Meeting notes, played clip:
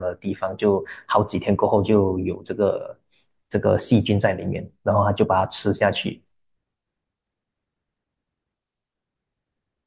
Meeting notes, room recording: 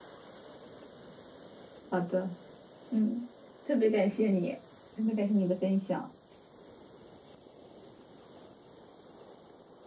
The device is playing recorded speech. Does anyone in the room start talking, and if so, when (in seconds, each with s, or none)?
1.9 s